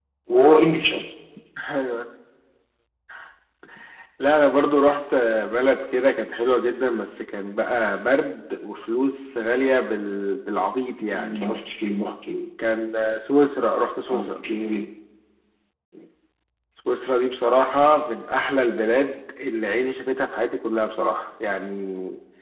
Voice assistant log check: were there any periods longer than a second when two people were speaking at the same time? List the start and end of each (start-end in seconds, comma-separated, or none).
none